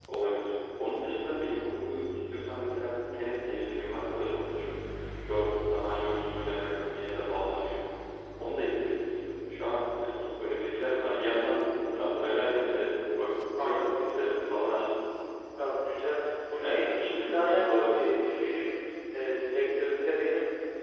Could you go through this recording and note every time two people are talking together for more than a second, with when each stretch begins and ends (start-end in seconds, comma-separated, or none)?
16.6-18.0